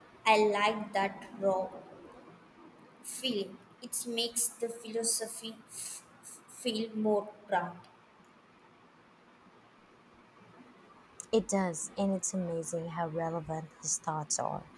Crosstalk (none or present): none